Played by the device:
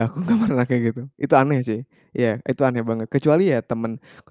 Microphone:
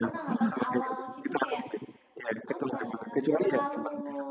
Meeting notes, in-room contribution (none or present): present